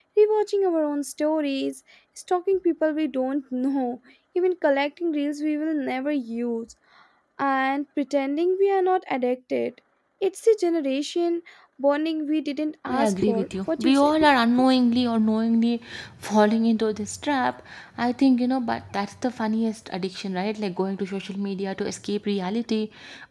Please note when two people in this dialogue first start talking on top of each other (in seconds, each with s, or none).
12.8 s